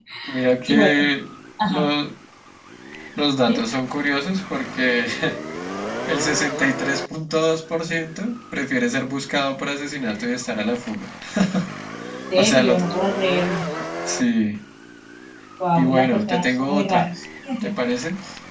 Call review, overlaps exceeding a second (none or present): present